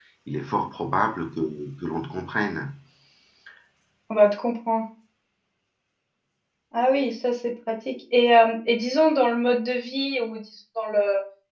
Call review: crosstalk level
none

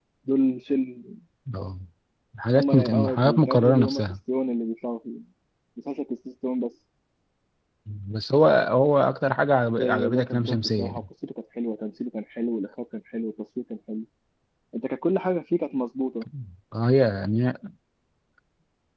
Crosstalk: present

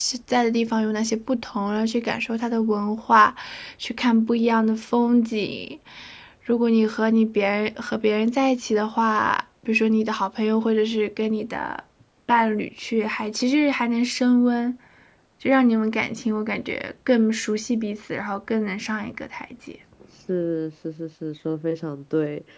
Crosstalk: none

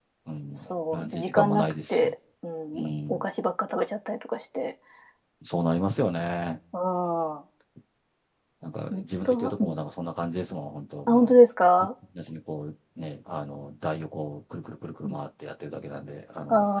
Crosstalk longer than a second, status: present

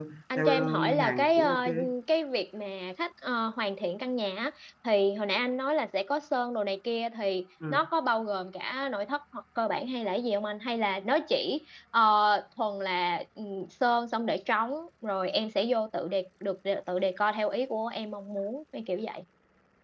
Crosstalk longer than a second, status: present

